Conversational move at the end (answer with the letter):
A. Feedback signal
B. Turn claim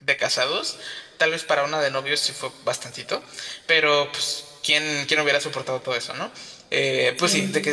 A